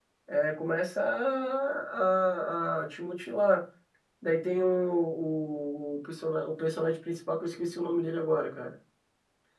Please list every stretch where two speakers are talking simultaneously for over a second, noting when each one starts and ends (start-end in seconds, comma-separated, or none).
none